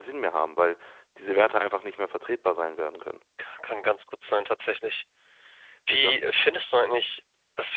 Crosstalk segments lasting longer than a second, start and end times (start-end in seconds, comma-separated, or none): none